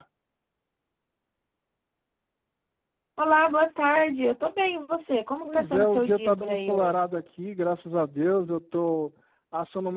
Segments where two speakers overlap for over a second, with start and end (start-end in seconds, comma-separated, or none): 5.4-7.1